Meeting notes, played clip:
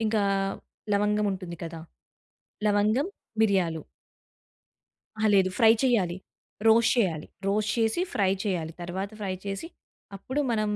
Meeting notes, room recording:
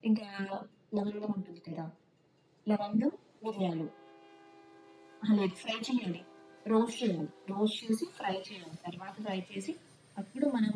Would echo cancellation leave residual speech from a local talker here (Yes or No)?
No